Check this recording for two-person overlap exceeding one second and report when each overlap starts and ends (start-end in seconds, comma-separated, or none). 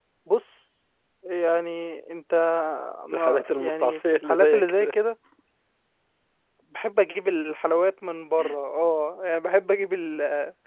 3.1-4.9